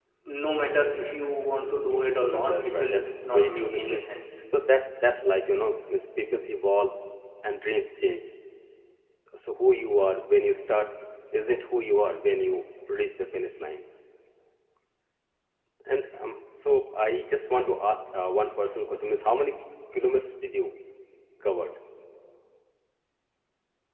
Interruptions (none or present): present